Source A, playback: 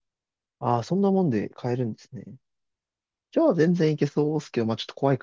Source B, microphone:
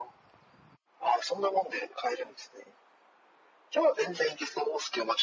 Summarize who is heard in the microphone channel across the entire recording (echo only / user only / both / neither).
echo only